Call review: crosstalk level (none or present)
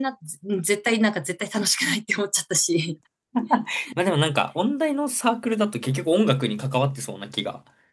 none